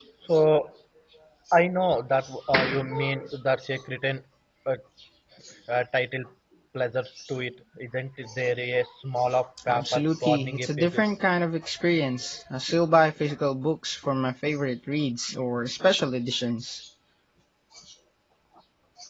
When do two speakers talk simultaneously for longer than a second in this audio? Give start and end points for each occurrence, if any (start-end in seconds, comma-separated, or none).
9.7-11.1